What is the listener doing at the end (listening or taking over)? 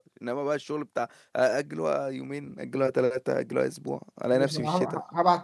taking over